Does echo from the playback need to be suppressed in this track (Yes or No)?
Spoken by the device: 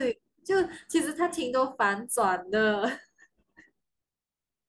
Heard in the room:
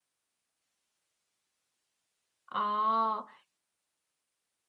No